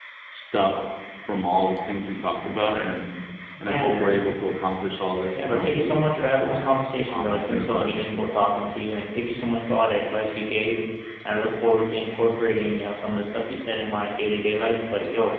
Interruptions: present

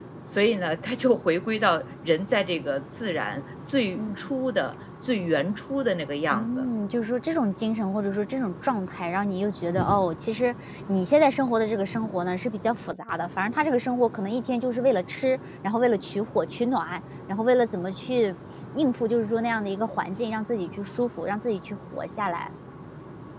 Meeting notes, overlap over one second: none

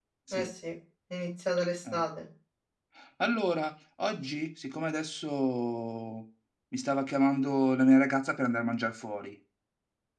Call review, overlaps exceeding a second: none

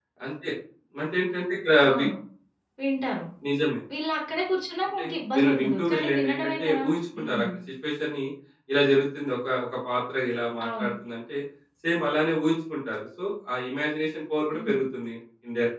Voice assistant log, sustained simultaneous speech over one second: present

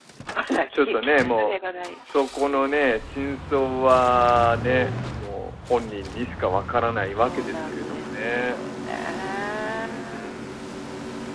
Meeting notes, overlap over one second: present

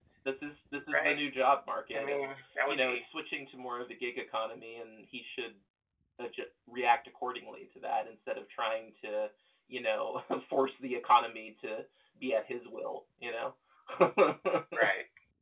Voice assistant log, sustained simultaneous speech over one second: none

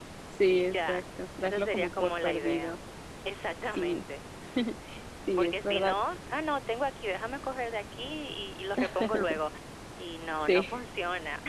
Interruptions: present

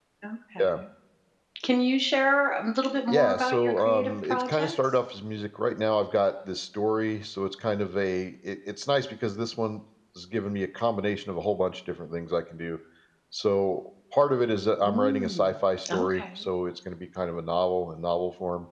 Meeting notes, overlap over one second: present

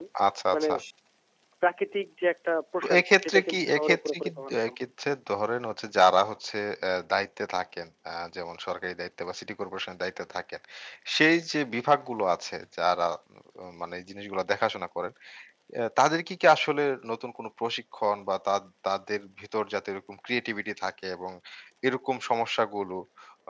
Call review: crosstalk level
present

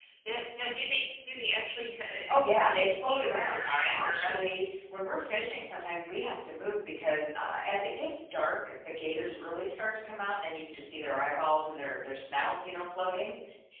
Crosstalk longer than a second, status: present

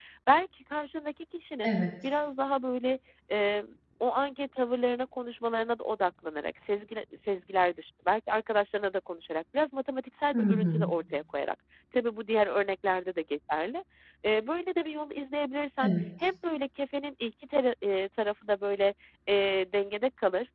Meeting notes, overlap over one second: none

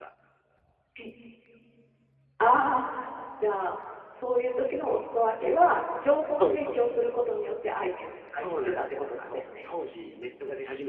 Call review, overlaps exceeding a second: present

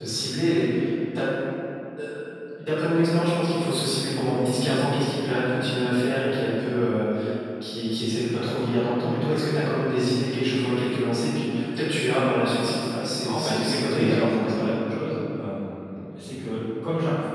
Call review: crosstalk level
present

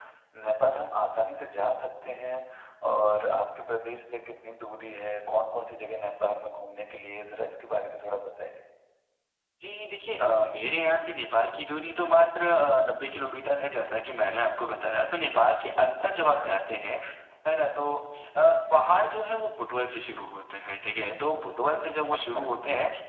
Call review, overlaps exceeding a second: none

